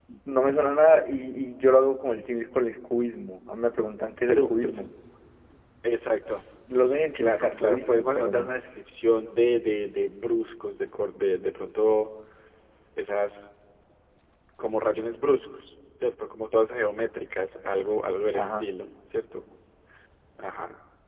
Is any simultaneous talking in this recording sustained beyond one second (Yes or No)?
Yes